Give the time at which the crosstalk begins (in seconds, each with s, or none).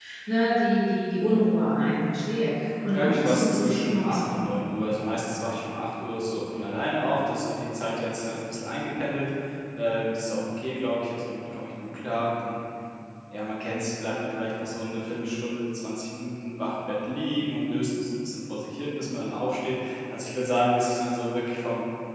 2.9 s